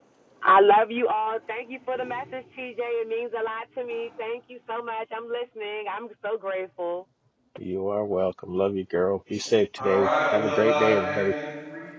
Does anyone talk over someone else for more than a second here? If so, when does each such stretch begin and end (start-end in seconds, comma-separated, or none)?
9.8-11.3